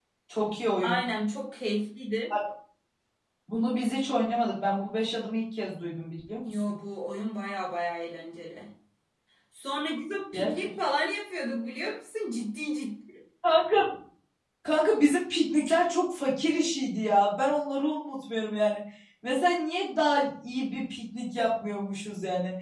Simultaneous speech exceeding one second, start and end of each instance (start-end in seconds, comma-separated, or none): none